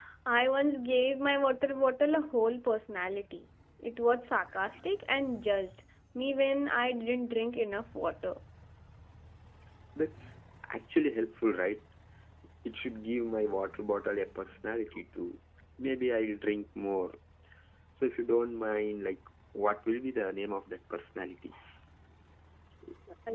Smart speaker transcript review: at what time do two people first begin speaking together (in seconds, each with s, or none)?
none